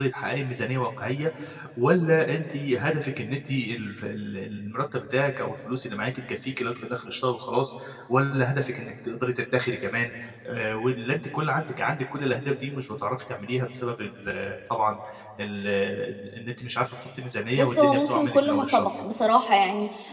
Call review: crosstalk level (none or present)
present